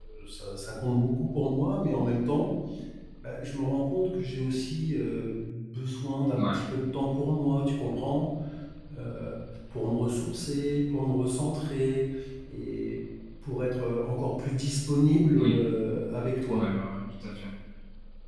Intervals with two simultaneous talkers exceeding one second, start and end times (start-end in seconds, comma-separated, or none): none